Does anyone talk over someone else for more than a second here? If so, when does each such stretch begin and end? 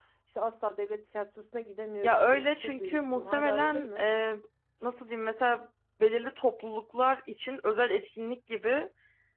2.0-4.0

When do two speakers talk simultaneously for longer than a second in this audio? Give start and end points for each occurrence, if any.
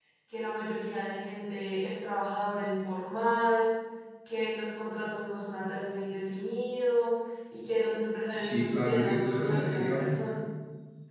8.4-10.1

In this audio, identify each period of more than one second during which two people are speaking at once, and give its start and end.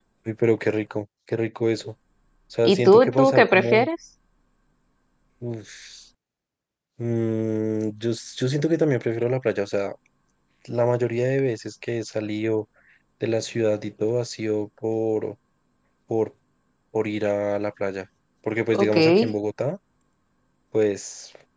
2.6-3.9

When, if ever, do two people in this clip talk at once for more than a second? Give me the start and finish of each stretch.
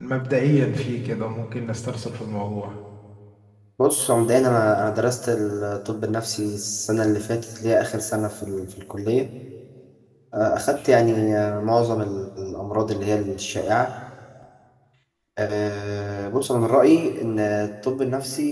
none

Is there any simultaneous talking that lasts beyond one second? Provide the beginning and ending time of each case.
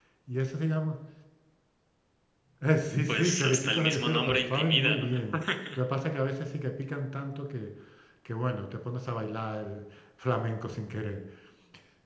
3.1-5.1

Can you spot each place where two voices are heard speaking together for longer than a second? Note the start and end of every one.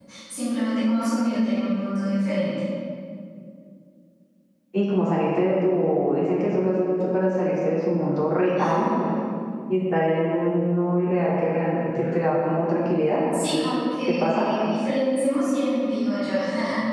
none

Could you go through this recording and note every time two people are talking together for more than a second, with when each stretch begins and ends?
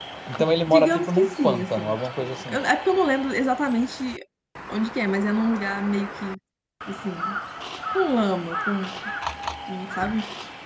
0.7-2.6

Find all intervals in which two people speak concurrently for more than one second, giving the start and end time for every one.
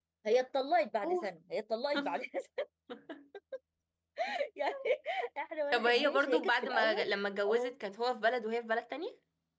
5.7-7.0

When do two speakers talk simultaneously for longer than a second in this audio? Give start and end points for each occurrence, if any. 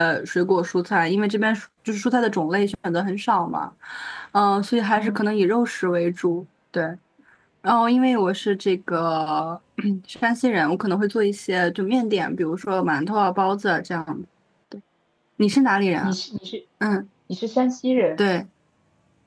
none

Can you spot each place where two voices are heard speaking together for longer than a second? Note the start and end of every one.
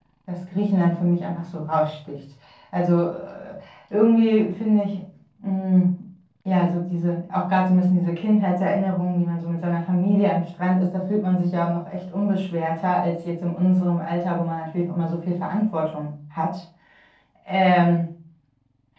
none

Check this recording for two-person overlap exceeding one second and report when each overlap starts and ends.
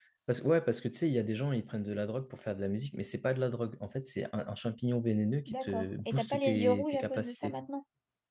5.5-7.5

